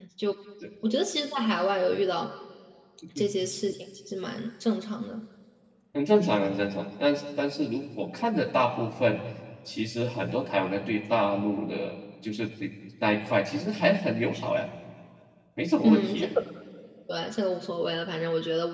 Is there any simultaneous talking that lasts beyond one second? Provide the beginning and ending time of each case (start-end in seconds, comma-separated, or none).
none